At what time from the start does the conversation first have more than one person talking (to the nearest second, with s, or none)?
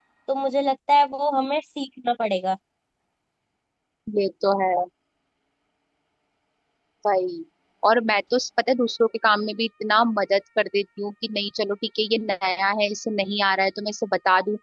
none